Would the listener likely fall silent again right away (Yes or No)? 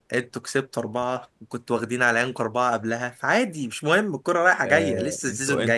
No